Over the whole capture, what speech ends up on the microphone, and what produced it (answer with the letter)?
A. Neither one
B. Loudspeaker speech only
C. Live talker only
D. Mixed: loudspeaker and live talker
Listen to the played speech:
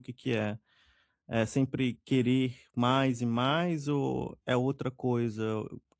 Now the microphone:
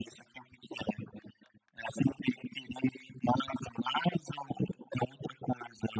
B